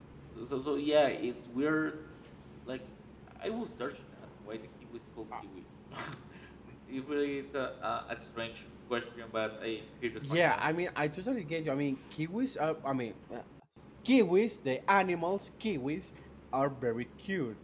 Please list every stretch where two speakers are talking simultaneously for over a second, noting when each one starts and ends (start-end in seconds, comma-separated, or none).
none